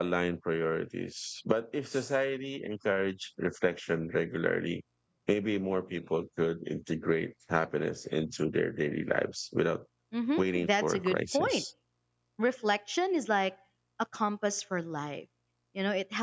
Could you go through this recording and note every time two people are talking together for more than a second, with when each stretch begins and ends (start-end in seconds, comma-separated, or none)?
10.4-11.6